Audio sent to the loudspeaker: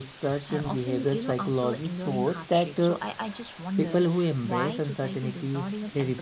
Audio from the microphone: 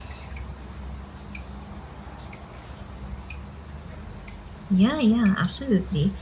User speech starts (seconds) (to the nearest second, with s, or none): 5 s